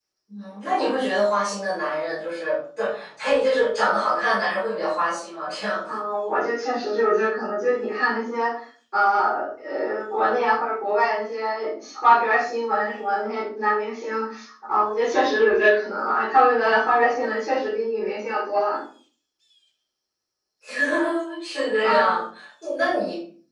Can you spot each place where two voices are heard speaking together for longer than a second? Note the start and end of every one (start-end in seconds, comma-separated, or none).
none